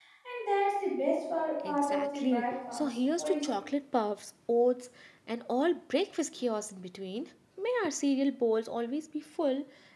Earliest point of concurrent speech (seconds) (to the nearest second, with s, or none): 2 s